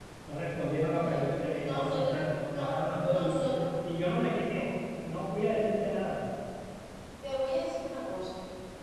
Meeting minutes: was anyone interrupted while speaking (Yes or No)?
Yes